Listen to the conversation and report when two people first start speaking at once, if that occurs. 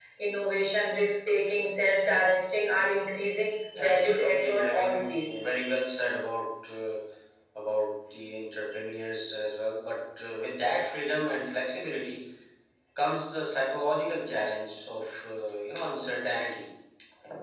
3.7 s

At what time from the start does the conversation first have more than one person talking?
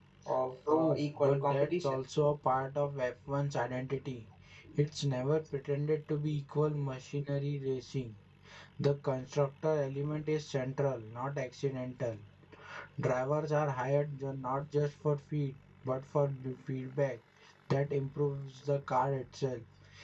0.7 s

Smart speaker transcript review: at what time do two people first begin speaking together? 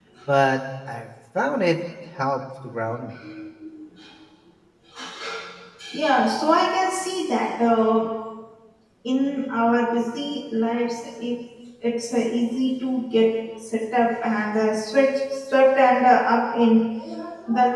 none

